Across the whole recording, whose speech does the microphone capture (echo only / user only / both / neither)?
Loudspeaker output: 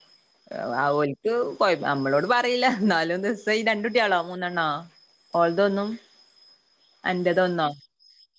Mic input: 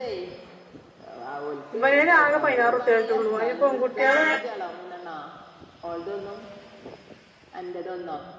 both